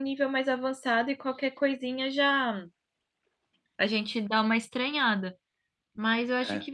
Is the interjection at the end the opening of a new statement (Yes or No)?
No